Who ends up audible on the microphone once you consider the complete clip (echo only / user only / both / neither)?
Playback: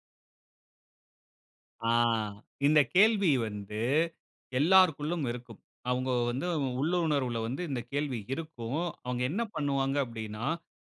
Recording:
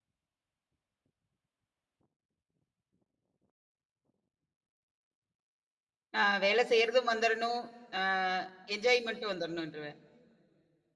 user only